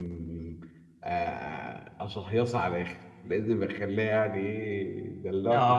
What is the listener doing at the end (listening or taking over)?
taking over